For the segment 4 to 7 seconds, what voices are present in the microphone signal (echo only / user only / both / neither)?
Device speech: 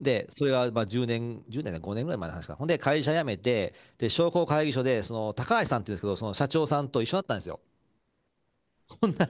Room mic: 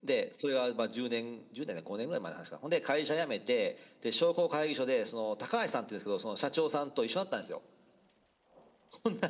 echo only